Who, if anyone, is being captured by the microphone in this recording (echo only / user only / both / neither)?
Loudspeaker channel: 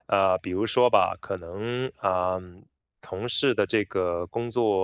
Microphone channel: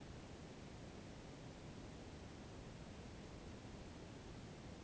neither